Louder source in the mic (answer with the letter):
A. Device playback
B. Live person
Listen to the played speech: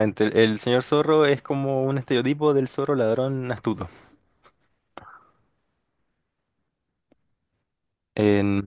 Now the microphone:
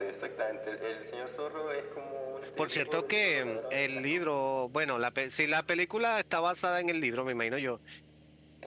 B